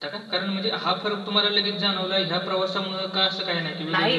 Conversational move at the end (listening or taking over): taking over